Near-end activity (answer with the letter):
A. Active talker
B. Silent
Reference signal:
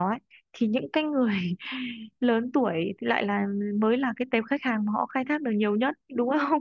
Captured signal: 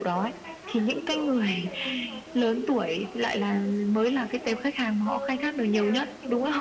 A